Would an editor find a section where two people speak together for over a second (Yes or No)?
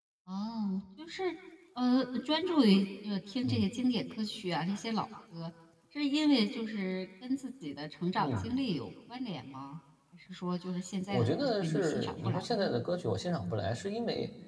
Yes